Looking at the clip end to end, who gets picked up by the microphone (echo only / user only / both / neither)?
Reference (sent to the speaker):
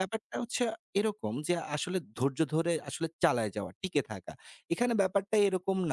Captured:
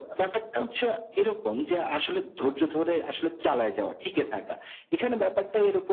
echo only